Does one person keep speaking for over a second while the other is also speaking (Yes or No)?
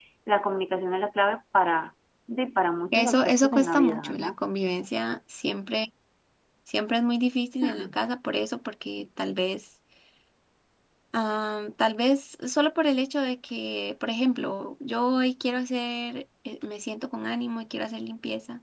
Yes